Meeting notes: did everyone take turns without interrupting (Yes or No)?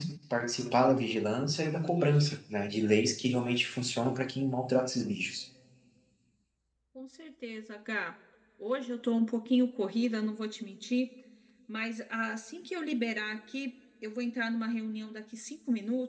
Yes